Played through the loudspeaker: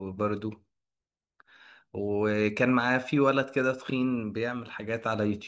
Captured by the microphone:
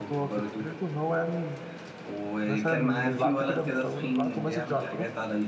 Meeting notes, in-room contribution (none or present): present